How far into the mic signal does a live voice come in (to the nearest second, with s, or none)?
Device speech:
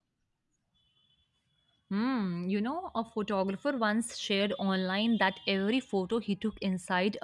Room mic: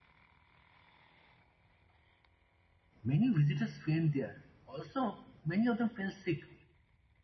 3 s